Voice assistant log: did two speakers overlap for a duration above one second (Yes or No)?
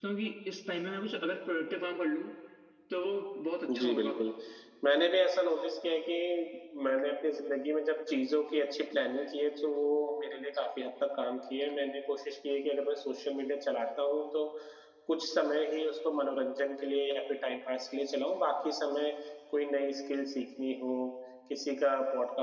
No